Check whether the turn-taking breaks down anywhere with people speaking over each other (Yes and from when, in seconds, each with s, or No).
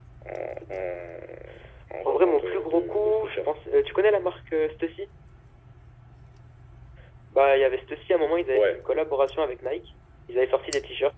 Yes, from 2.0 s